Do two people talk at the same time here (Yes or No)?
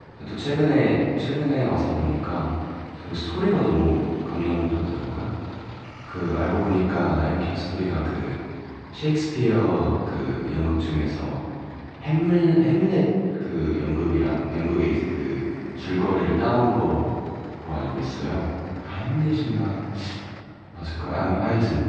No